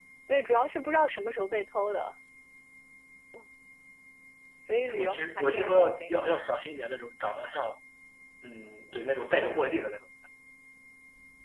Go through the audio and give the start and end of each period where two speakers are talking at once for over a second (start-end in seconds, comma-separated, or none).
4.9-6.2